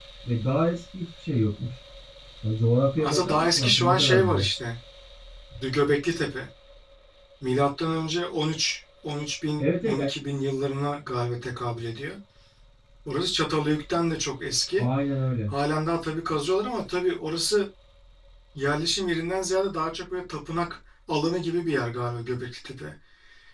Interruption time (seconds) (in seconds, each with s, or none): 3.0 s